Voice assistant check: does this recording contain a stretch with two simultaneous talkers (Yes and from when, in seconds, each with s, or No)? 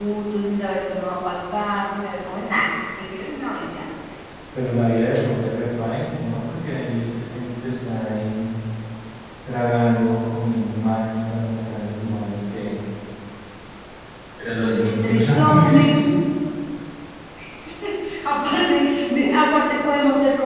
Yes, from 14.6 s